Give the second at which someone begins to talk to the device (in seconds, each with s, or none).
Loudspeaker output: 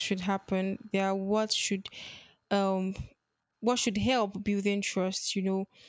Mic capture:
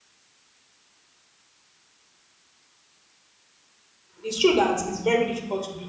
4.2 s